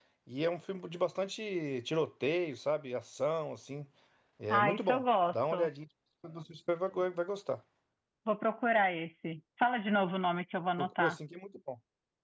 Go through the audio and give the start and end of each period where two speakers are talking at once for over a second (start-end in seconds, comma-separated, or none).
4.5-5.7